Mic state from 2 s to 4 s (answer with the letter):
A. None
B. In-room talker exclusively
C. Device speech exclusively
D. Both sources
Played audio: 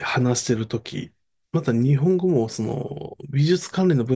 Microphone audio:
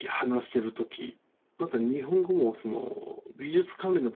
C